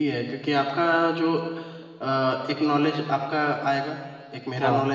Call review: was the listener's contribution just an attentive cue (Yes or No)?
Yes